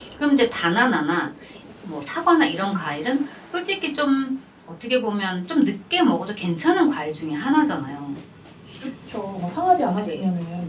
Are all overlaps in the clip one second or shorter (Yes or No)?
Yes